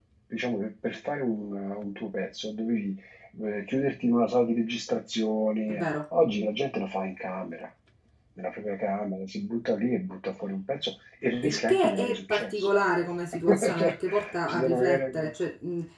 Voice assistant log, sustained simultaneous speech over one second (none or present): present